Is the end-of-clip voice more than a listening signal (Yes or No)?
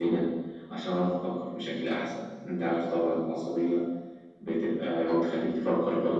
No